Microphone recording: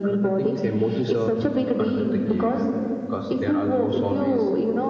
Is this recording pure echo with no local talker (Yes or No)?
Yes